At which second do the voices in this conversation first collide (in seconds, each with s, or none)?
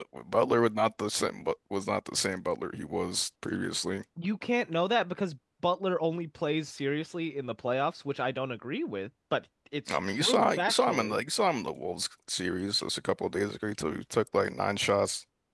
9.9 s